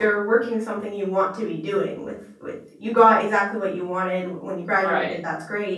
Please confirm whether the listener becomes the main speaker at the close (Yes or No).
No